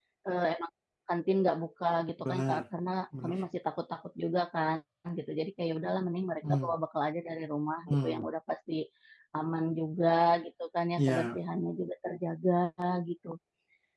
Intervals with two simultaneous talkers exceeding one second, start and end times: none

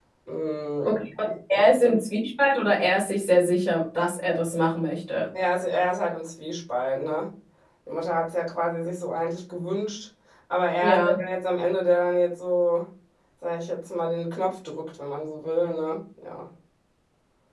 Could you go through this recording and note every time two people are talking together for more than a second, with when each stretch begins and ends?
none

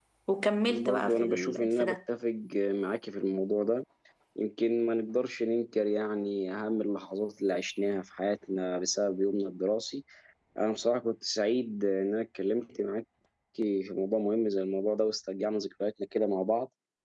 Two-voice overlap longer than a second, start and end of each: 0.7-2.0

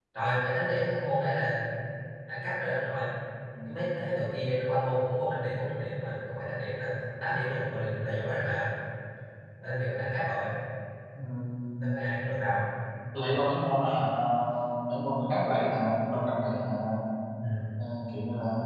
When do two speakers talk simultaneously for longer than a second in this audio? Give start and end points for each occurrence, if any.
none

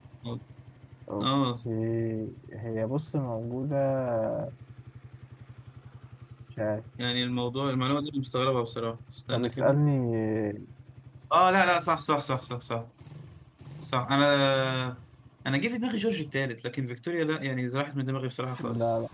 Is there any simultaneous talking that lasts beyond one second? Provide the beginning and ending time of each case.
none

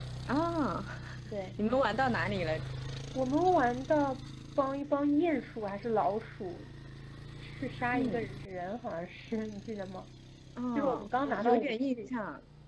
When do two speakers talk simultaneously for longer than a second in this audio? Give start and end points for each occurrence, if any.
10.8-12.1

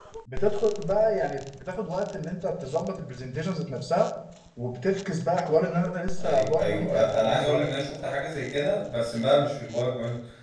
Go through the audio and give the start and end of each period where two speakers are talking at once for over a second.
6.2-7.6

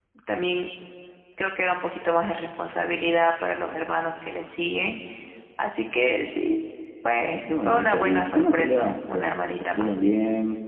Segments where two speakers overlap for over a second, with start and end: 7.2-10.0

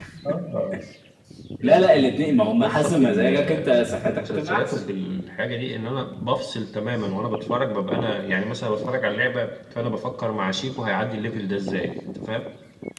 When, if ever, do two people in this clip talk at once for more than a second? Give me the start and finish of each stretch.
1.6-4.9

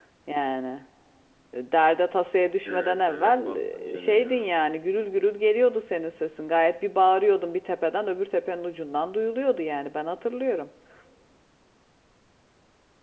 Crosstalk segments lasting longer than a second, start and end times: 2.7-4.4

